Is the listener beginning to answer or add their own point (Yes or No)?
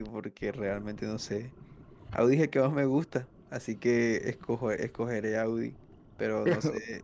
No